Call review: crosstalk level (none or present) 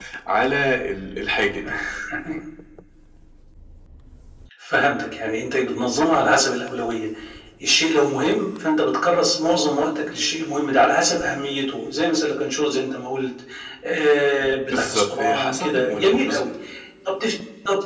present